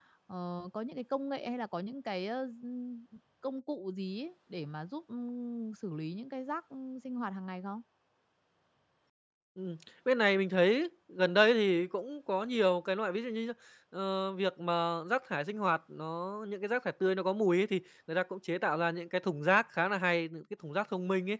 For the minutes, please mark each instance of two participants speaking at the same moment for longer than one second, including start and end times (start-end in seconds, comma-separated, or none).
none